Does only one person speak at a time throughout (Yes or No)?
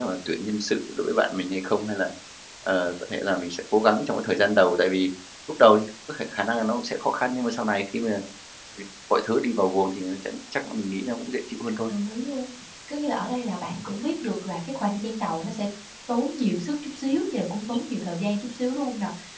Yes